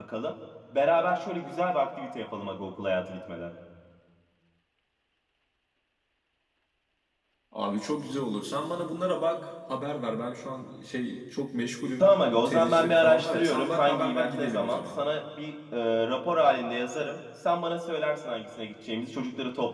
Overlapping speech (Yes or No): Yes